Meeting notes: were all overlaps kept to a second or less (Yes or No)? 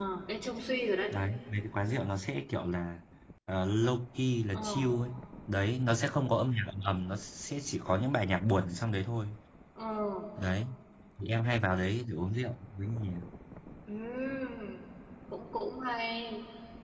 Yes